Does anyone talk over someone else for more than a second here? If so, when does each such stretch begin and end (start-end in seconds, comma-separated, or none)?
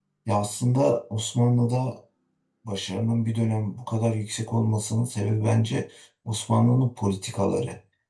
none